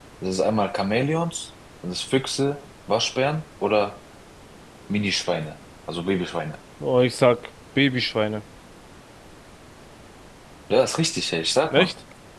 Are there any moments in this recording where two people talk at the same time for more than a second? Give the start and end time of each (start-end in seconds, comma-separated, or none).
none